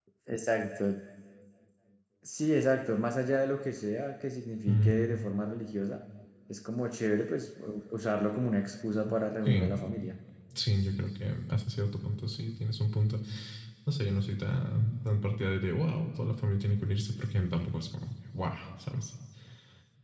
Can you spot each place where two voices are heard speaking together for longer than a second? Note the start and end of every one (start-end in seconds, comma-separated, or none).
none